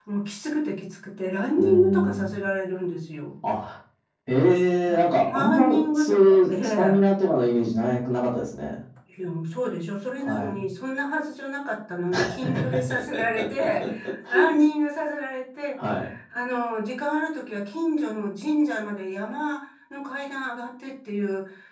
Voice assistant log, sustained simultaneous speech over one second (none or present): present